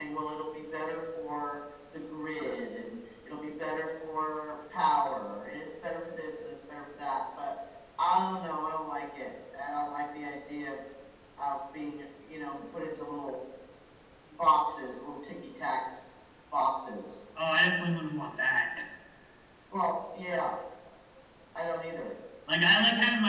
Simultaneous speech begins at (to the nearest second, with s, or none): none